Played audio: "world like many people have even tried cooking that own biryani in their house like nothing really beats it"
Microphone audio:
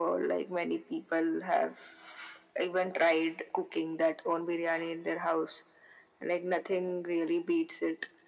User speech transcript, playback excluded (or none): none